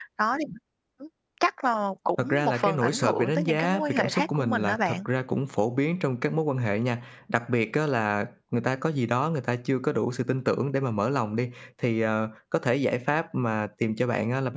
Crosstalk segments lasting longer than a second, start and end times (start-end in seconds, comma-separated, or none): 2.2-5.0